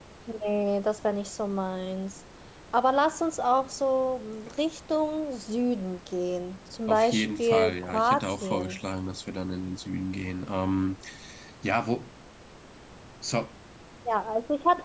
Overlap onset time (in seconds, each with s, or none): 6.9 s